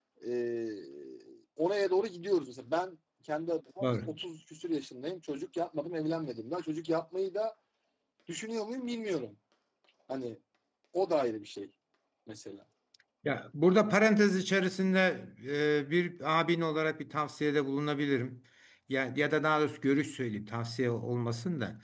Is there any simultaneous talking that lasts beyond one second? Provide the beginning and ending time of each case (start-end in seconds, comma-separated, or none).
none